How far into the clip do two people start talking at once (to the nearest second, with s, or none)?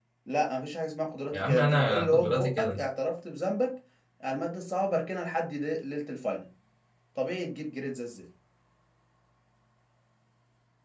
1 s